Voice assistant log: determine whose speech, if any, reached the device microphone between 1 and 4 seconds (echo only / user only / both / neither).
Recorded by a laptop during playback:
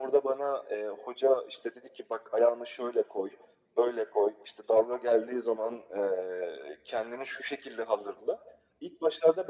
echo only